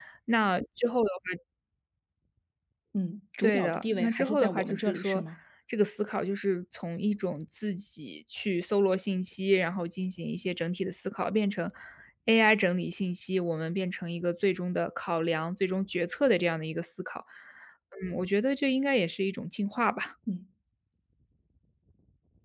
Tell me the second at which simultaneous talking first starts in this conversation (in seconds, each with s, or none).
3.4 s